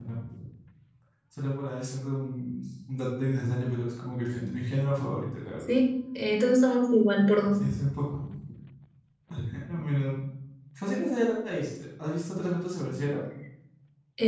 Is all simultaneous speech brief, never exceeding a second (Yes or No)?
Yes